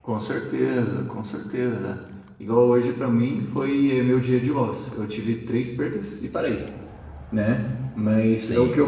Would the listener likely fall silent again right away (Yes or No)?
Yes